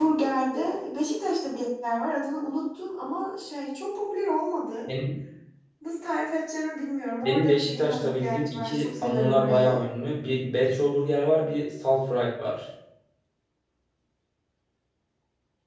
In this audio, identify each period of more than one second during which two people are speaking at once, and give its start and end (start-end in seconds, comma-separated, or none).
7.2-9.8